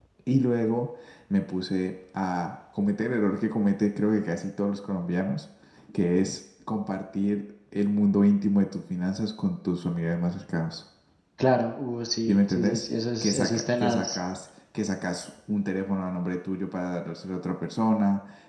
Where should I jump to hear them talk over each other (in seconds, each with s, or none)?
12.3 s